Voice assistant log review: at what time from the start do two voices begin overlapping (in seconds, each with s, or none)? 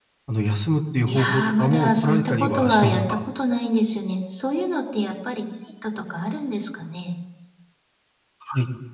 1.1 s